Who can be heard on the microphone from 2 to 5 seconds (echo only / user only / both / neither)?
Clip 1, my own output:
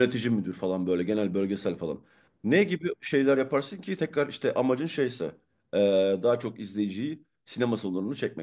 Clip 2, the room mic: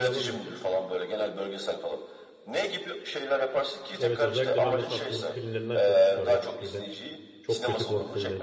both